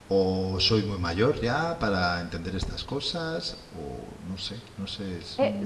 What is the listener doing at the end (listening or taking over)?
taking over